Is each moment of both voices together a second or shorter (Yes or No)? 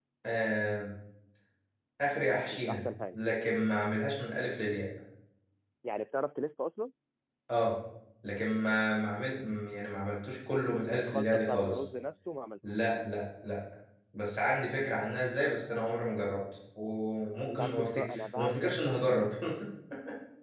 No